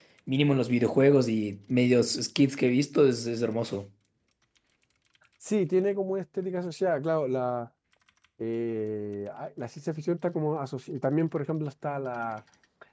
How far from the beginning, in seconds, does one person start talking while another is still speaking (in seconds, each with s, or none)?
none